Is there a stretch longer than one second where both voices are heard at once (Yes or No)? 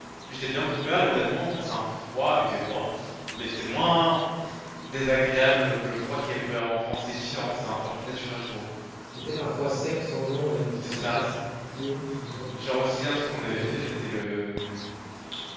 No